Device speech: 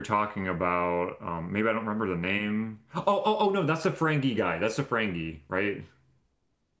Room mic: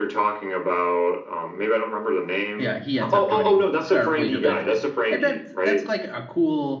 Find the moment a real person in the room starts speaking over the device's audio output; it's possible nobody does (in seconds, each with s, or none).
2.6 s